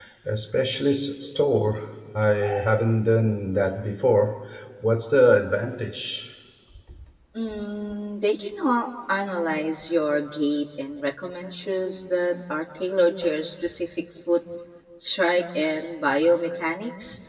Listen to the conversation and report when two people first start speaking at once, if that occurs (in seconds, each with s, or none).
none